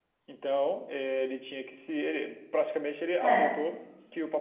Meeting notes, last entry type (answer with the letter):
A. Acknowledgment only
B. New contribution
A